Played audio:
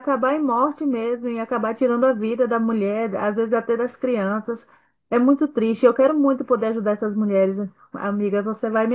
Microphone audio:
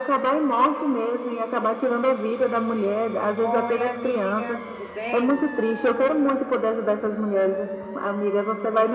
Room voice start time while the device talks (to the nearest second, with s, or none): 3 s